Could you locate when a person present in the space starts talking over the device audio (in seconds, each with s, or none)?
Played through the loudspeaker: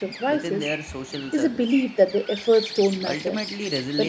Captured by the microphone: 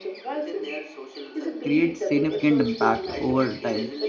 1.6 s